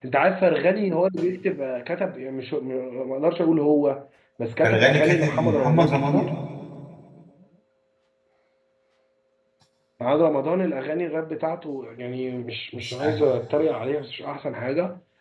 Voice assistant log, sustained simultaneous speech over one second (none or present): present